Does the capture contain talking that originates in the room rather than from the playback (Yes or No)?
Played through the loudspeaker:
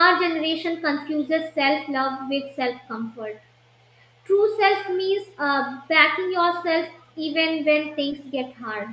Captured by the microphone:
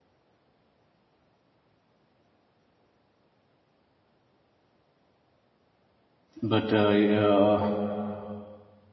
Yes